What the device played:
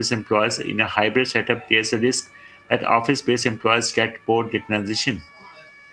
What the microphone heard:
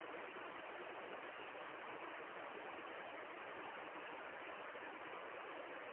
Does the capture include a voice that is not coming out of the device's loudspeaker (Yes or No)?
No